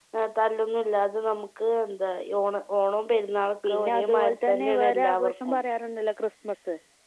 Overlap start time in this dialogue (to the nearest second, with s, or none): 4 s